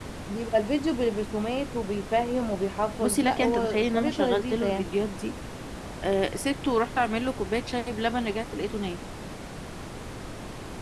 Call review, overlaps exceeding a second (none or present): present